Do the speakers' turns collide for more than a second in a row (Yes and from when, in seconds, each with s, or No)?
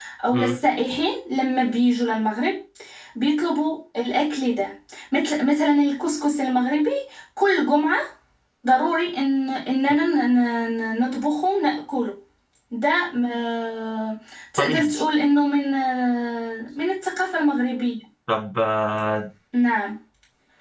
No